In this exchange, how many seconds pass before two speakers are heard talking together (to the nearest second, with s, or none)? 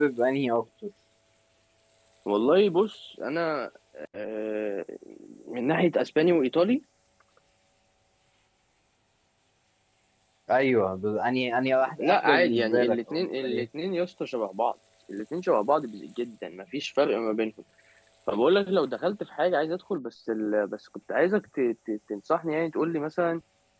12 s